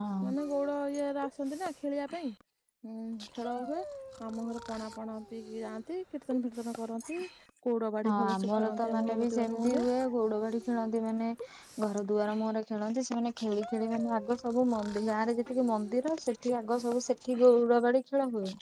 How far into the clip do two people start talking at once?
8.1 s

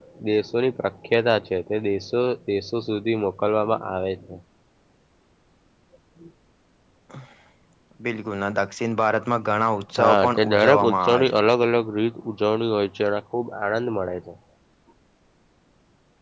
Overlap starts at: 10.0 s

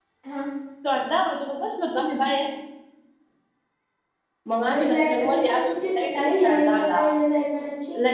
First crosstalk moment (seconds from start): 4.7 s

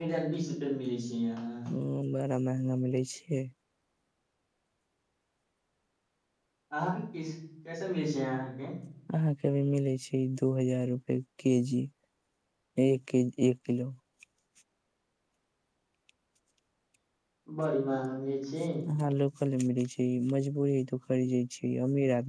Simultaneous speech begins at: none

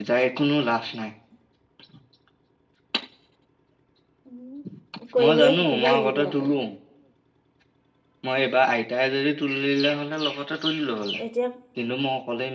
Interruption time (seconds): 5.2 s

